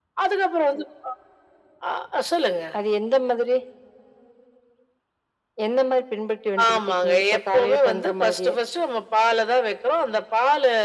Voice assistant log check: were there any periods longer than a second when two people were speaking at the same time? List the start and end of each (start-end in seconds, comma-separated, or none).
6.7-8.6